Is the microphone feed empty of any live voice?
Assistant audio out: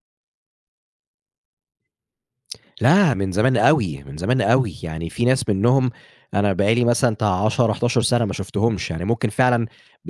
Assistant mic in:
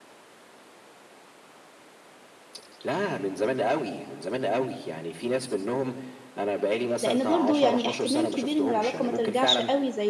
No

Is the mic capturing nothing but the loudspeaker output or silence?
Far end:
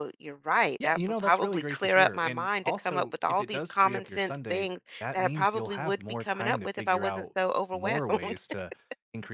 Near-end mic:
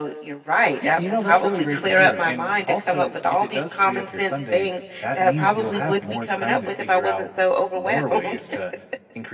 Yes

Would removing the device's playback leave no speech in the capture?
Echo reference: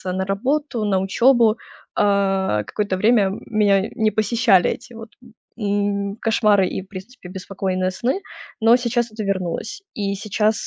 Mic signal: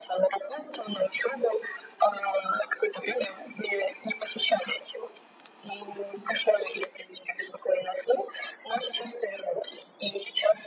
Yes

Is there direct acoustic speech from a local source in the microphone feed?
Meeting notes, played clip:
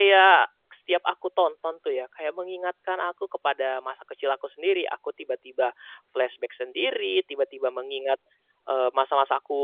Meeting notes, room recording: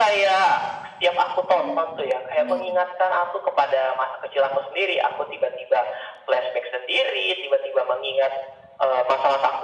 Yes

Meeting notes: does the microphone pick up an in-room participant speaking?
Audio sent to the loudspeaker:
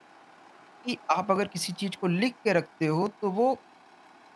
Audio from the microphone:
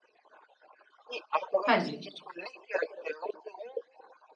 Yes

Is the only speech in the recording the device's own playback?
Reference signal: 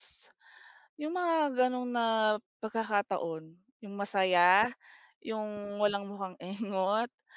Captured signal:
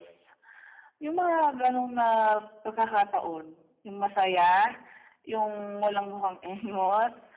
Yes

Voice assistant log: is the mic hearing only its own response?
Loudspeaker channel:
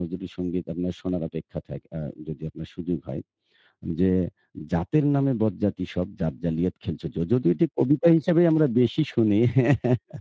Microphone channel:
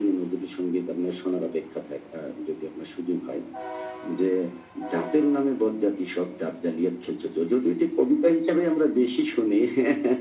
Yes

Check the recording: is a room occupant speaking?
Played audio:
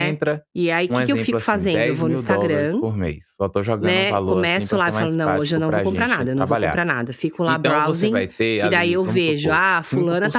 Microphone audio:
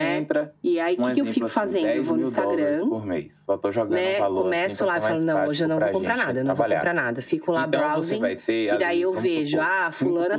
No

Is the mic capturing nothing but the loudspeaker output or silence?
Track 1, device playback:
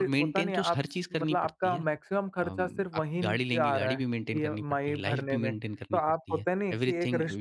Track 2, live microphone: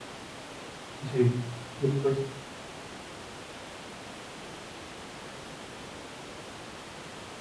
No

